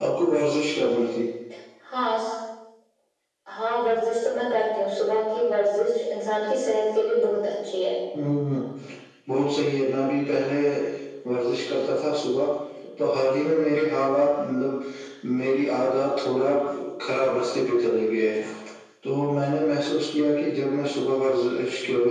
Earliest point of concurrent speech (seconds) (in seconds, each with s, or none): none